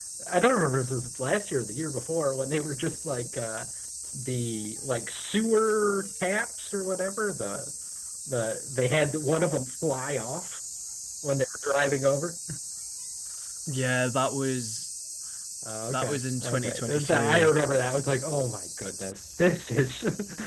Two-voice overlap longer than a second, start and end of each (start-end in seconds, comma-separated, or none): 15.9-17.5